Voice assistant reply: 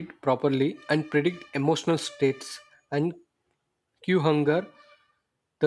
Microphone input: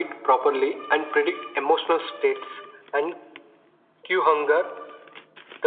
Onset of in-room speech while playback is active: none

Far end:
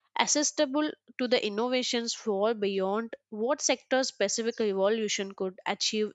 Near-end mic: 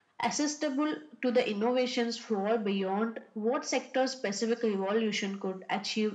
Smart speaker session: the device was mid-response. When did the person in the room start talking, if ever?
none

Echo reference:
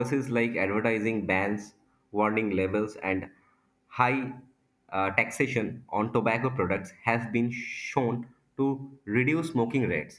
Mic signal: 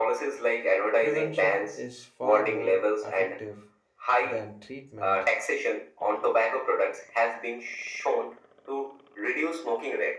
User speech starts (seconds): 1.0 s

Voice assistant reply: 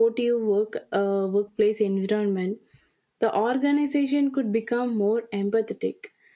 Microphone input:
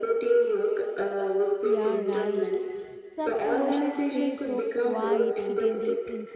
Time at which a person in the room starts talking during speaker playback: 1.6 s

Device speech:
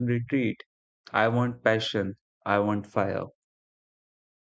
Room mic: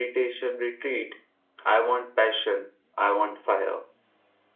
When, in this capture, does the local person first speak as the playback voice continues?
none

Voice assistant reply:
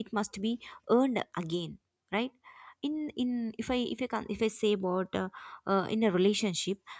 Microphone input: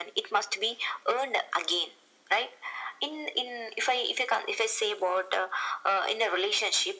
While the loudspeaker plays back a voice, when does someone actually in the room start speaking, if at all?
none

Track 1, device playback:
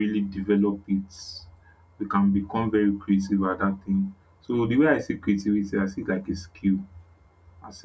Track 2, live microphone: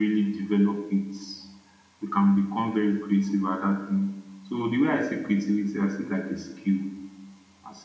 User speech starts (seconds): none

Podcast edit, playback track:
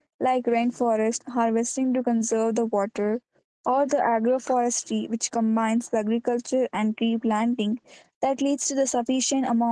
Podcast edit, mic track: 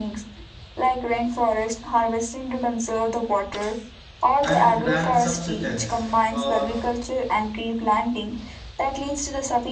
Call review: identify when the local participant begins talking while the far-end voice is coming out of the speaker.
4.4 s

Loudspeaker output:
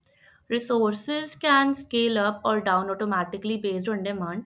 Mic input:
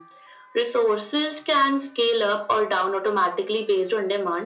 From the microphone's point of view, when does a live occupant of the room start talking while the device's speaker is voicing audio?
none

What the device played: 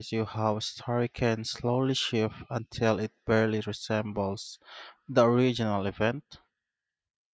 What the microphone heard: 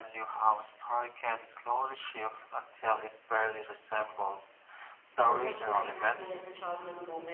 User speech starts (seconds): 5.1 s

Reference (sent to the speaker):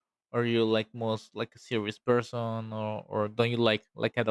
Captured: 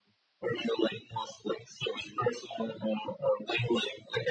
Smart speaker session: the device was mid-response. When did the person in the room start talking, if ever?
none

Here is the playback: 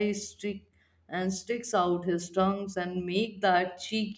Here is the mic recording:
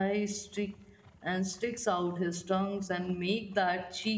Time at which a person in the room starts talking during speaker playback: none

